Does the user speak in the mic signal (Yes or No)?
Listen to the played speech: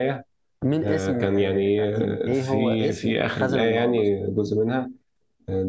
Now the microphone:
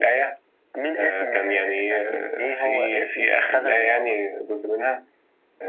No